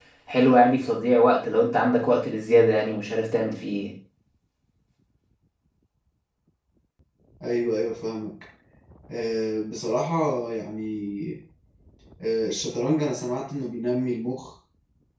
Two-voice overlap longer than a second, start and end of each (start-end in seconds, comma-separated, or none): none